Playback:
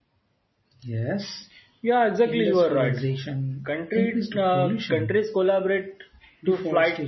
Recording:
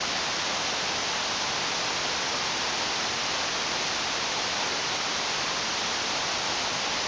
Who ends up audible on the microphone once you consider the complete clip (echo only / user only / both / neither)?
neither